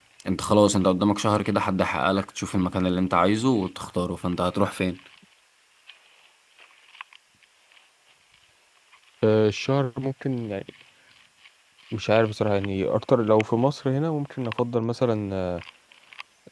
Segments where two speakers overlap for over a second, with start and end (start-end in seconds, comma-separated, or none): none